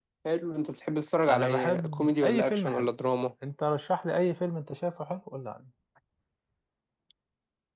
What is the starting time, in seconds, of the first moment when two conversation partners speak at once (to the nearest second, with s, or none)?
1 s